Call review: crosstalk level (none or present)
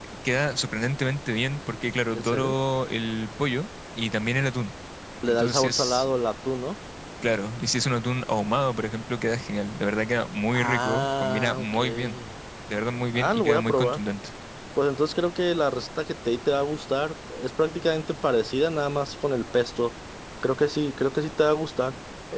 present